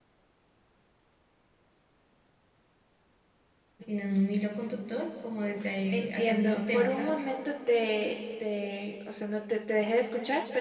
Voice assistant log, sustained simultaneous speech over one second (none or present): present